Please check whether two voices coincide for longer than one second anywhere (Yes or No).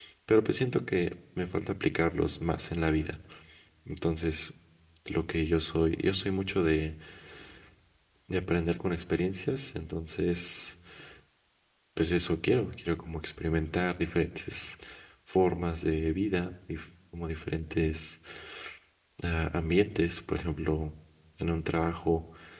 No